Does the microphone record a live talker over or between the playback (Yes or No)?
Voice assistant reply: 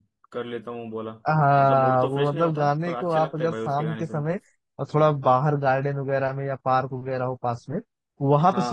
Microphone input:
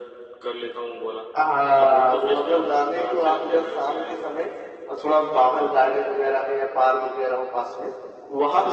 No